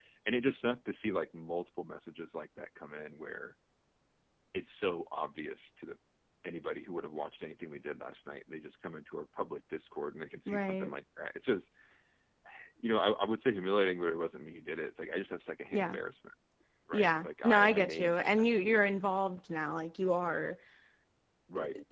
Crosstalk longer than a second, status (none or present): present